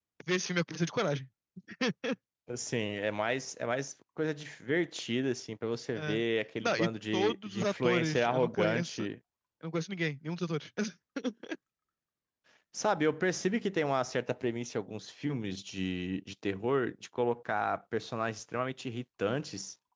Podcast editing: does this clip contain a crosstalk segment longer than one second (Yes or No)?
Yes